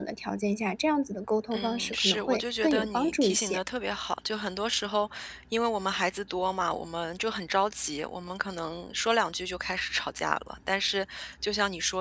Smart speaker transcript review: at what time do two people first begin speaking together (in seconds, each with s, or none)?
1.5 s